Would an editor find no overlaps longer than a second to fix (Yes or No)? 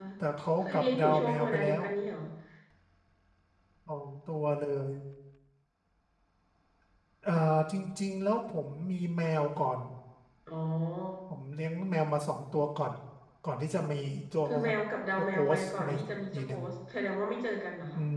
No